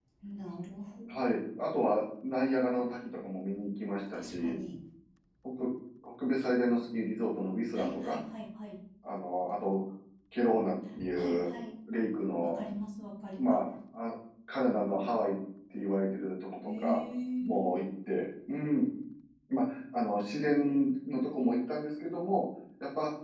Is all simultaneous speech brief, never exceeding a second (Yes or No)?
Yes